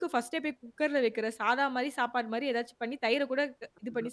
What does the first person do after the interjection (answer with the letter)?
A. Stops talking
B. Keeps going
A